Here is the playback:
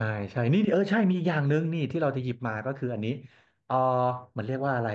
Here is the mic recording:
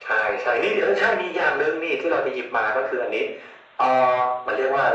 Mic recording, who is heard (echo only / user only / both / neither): echo only